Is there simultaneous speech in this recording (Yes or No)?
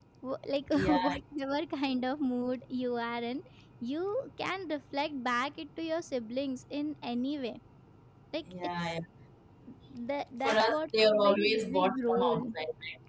Yes